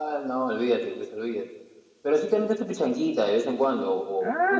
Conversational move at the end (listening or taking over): taking over